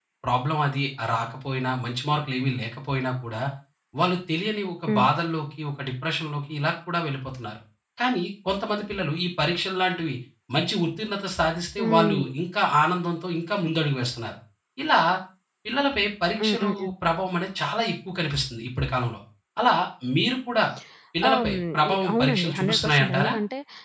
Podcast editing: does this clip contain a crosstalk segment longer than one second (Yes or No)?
Yes